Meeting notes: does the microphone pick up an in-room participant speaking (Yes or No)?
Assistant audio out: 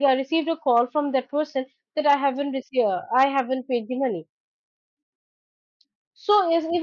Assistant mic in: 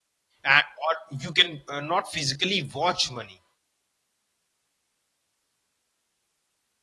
Yes